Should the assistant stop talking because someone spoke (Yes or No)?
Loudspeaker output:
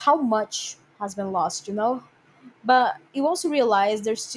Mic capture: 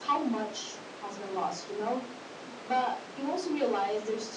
No